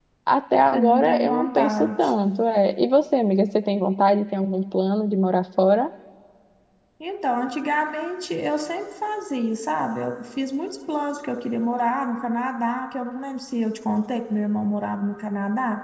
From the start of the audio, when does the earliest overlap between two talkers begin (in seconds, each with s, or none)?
0.7 s